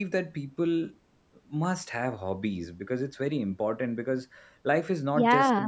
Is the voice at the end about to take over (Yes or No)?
No